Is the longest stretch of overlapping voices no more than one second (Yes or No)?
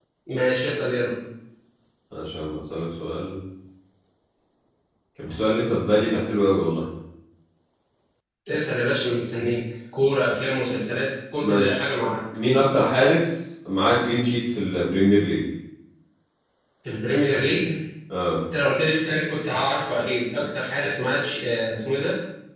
Yes